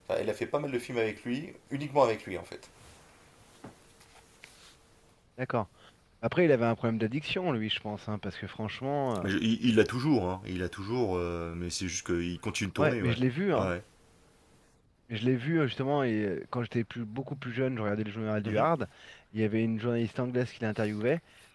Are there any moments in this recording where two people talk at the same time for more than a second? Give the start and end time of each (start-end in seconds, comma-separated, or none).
none